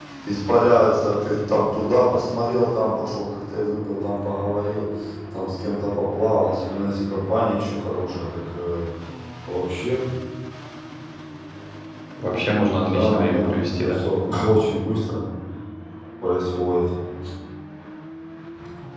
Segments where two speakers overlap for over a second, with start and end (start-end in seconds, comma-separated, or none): 12.7-14.0